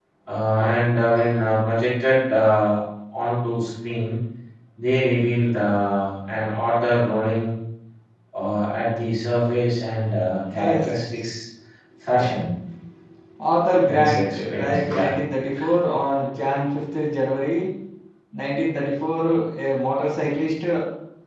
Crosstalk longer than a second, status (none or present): present